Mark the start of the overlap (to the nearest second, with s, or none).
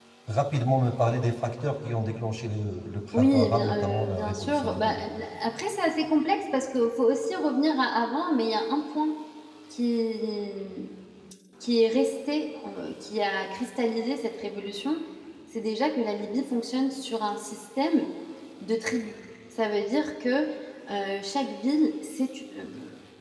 3 s